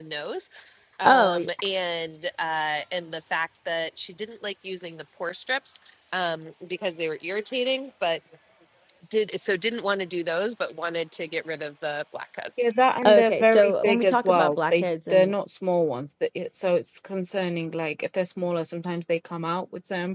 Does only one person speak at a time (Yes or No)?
No